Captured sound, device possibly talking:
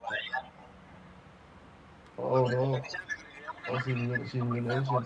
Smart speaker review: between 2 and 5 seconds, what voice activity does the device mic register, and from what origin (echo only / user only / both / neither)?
both